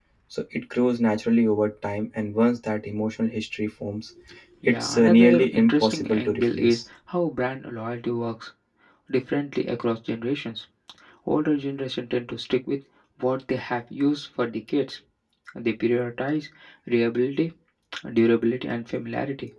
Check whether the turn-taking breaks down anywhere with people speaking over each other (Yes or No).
Yes